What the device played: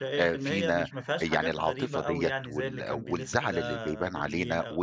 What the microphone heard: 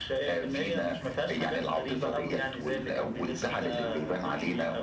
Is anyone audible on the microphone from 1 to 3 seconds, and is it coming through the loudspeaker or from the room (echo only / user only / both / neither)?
echo only